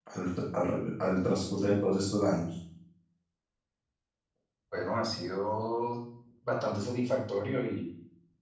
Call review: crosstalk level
none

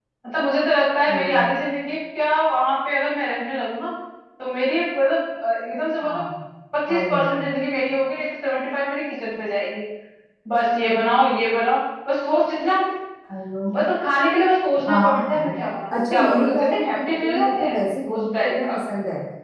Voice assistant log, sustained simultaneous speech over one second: present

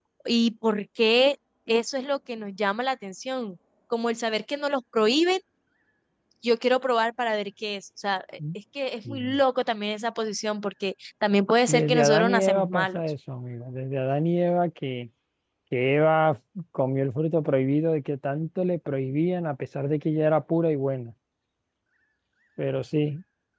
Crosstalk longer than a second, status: present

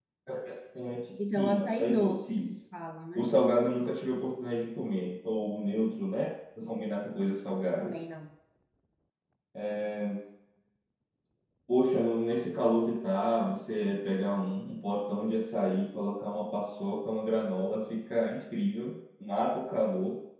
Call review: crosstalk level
present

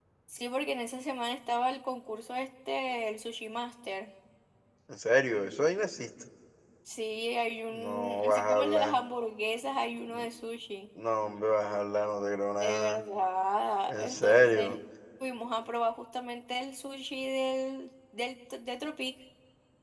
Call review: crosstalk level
present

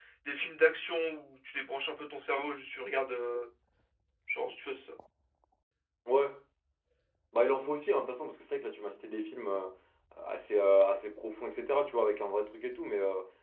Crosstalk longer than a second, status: none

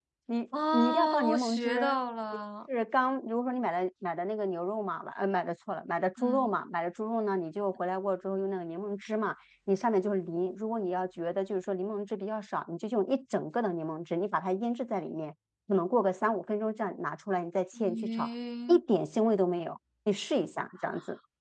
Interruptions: present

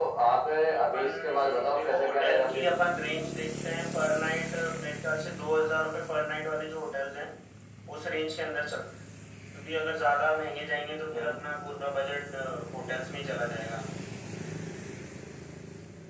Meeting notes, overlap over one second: present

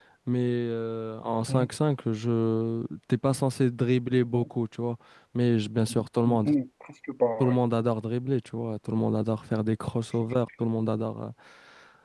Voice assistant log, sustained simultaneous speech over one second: none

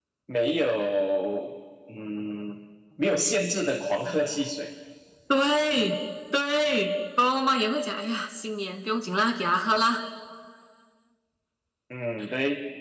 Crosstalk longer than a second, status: none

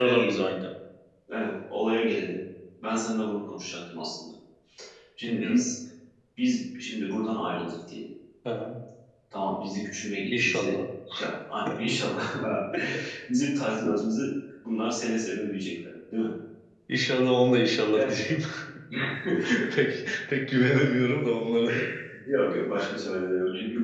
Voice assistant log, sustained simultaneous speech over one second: none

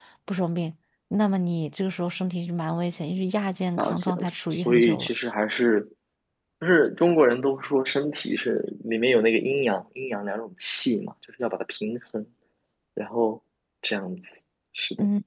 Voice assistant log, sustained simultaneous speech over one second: present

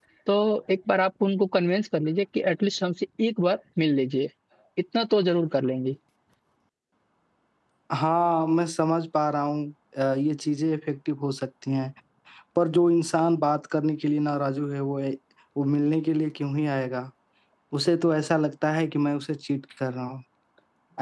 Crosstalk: none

